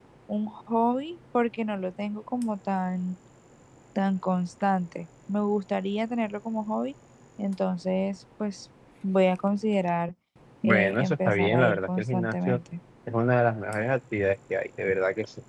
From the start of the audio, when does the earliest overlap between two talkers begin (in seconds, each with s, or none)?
10.6 s